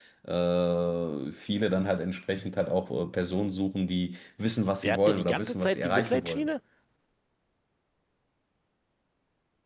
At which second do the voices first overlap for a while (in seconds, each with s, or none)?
4.8 s